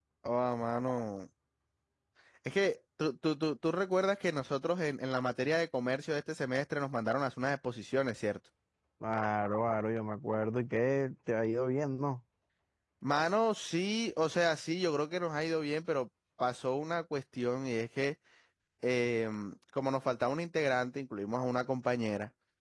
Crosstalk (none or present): none